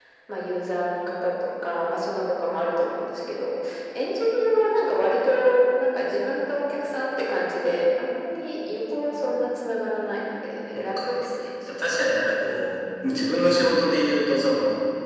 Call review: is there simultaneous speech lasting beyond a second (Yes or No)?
No